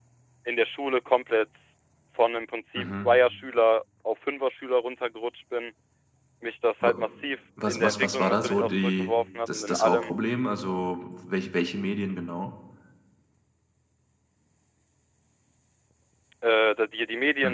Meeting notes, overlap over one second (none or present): present